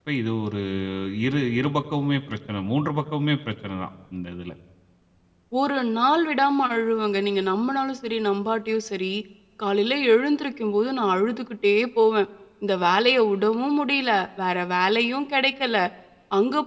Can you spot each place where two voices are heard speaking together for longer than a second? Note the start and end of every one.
none

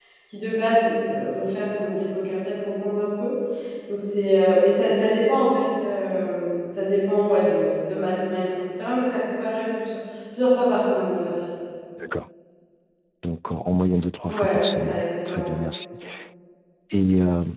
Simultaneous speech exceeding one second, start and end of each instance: 14.3-15.5

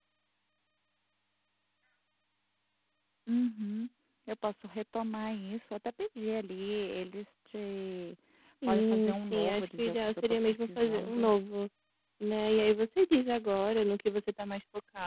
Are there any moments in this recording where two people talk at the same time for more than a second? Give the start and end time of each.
8.7-11.3

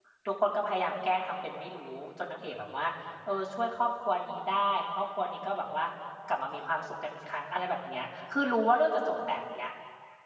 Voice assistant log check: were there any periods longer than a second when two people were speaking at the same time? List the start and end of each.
none

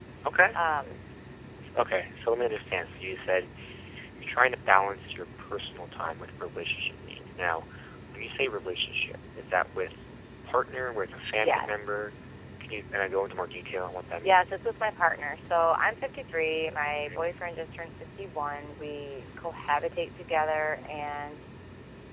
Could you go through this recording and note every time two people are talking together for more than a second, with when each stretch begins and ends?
none

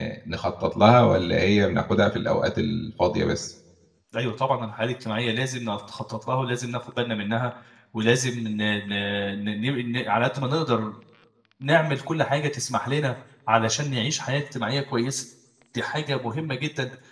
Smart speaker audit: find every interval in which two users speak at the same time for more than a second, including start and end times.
none

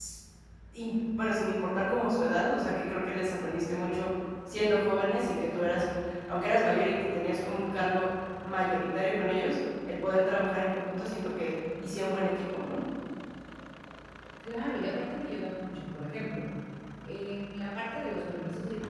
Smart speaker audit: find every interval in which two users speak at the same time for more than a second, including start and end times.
none

